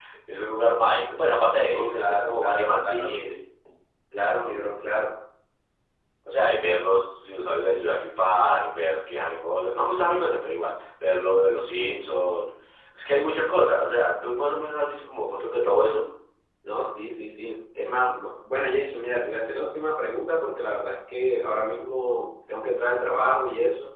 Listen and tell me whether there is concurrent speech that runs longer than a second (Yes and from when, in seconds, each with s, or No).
Yes, from 1.7 s